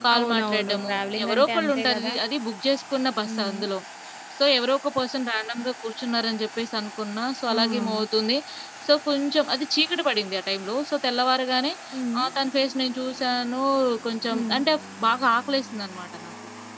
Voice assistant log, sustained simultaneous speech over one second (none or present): present